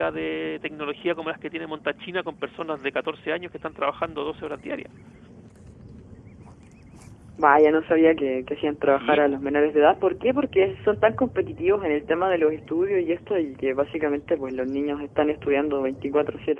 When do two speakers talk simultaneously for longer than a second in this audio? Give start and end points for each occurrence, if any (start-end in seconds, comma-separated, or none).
none